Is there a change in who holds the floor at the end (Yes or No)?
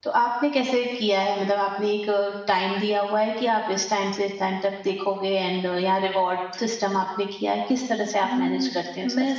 Yes